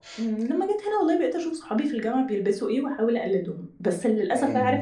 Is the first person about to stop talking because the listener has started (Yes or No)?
No